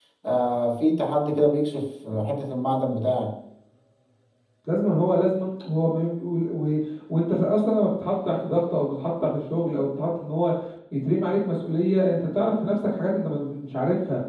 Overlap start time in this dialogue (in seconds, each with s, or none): none